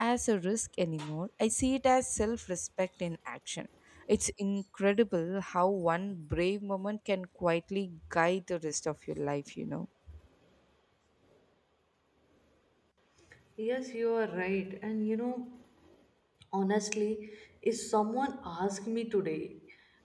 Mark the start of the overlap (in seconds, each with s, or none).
none